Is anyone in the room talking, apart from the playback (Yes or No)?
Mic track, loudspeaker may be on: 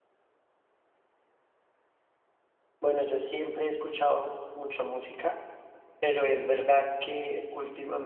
Yes